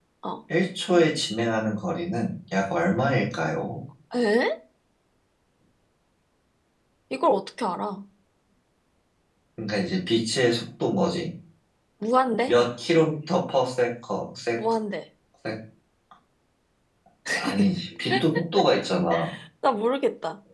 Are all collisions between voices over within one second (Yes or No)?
Yes